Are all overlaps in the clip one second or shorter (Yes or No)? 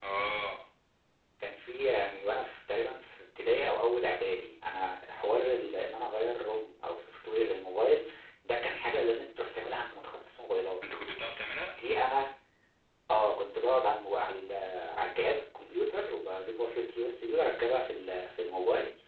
Yes